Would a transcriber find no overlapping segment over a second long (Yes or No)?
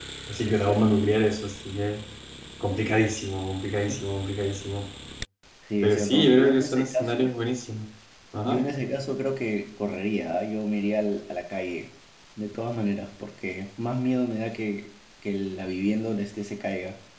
No